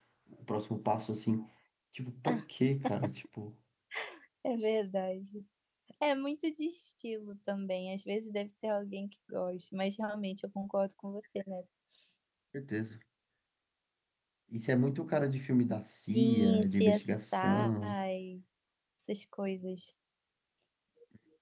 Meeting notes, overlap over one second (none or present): present